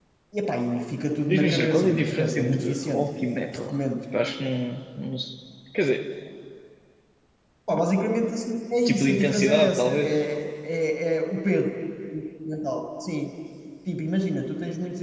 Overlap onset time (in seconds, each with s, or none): 1.3 s